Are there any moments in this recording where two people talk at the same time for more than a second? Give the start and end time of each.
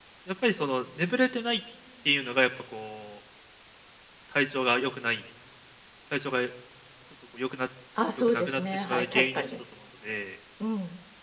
8.2-9.6

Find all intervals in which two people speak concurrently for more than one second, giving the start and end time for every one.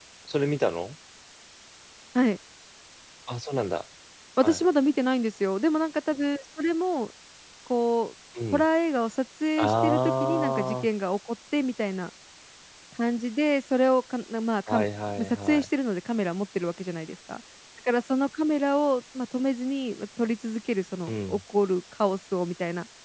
9.6-10.9

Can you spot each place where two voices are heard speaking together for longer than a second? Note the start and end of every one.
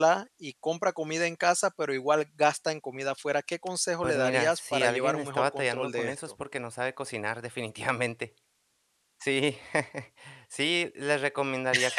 4.0-6.2

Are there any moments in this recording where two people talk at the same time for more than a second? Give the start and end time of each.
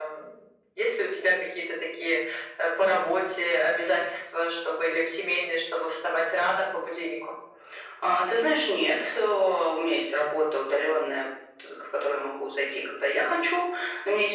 none

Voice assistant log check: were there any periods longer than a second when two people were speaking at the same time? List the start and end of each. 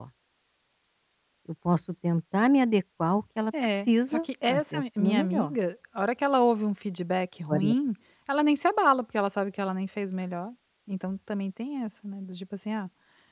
3.7-5.5

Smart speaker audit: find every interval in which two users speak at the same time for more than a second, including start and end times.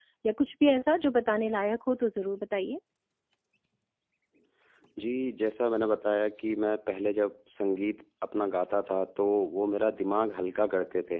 none

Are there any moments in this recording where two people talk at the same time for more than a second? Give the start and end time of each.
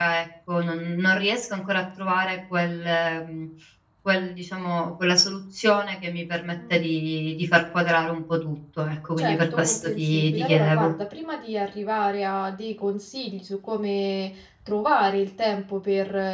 9.2-10.9

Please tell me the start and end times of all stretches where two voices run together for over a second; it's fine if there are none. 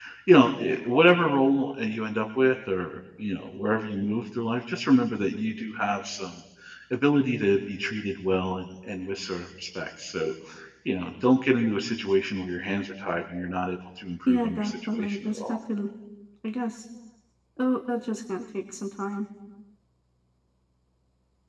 14.3-15.6

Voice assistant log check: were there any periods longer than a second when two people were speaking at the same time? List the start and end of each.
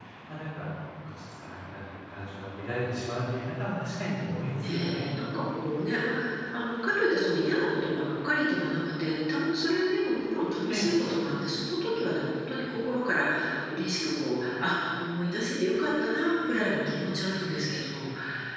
none

